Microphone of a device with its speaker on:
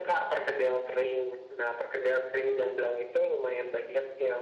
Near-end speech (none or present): none